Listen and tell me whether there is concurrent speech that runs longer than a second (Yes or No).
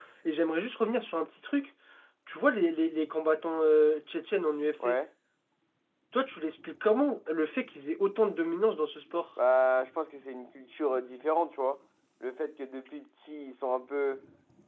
No